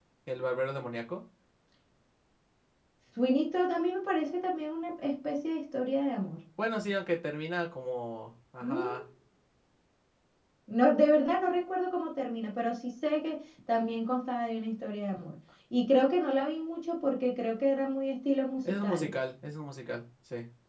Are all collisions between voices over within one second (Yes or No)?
Yes